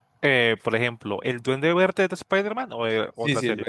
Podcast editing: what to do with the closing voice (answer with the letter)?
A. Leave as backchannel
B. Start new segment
B